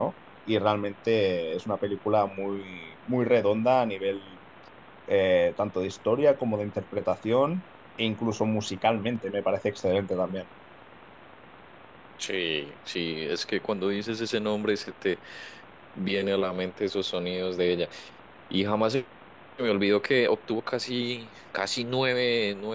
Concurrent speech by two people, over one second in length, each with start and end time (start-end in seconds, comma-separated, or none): none